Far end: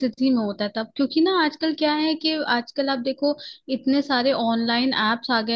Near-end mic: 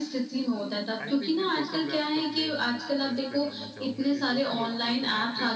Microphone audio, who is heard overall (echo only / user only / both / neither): both